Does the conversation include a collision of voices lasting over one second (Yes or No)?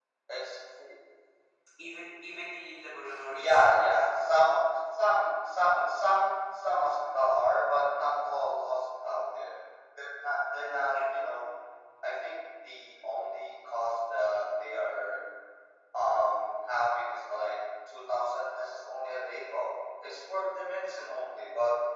No